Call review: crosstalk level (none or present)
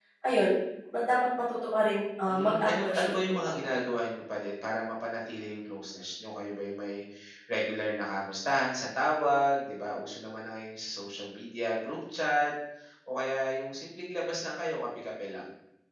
present